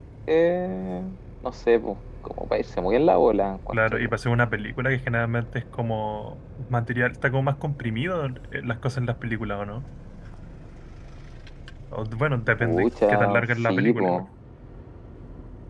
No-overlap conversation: No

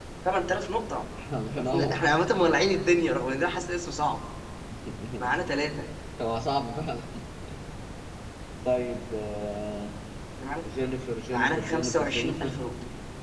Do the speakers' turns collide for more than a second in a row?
Yes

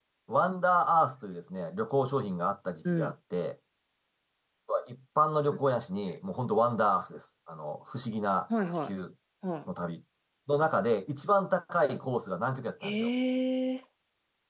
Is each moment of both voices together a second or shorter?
Yes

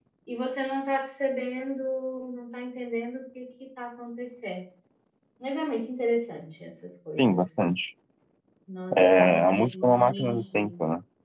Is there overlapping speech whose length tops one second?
Yes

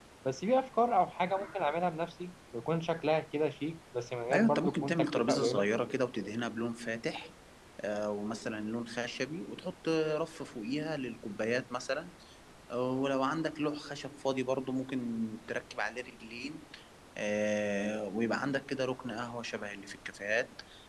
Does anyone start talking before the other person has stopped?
Yes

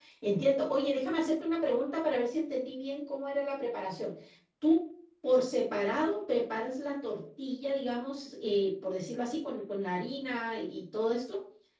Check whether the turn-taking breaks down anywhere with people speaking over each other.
No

